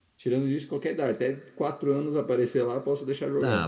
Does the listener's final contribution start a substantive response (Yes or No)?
Yes